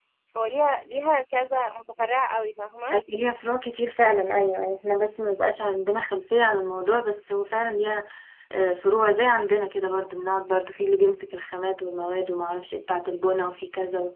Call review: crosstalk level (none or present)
none